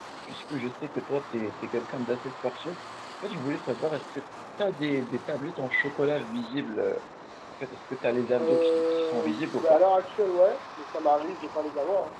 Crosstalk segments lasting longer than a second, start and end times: 8.4-9.8

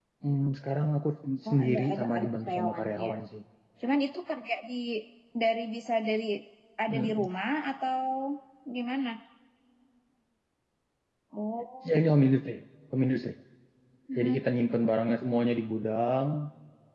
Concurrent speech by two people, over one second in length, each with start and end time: 1.5-3.1

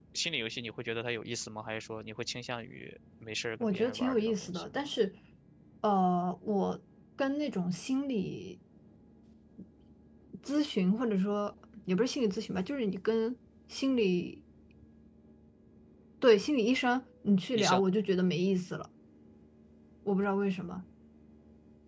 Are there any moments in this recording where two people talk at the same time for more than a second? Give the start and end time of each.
3.6-4.8

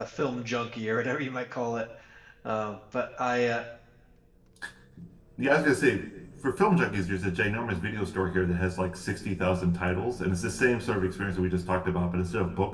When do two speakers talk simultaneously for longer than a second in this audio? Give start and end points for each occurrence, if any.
none

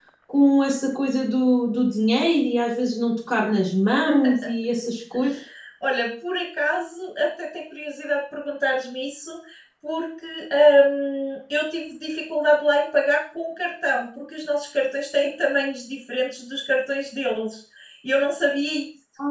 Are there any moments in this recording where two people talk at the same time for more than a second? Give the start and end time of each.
none

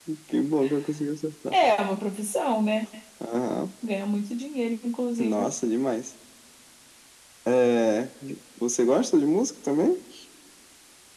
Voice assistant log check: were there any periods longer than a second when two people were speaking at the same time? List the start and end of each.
none

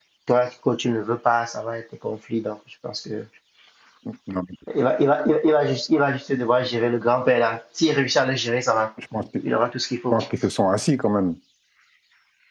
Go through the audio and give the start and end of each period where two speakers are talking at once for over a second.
none

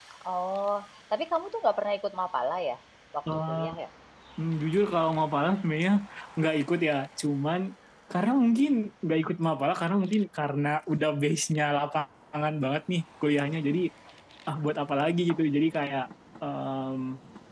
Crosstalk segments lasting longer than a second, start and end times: none

